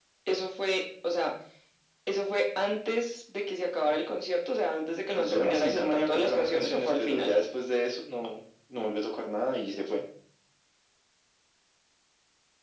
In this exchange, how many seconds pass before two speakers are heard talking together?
5.2 s

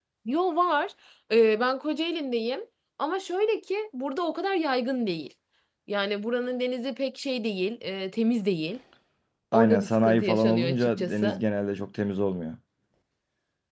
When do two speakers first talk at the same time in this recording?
9.5 s

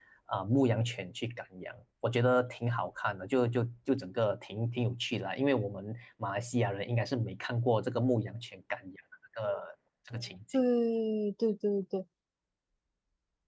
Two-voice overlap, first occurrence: none

